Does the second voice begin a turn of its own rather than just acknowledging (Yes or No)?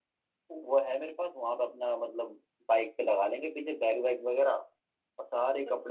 No